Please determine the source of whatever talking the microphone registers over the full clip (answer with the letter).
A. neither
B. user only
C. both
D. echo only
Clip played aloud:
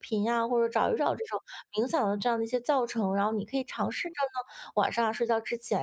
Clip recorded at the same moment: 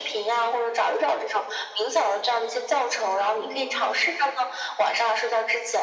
C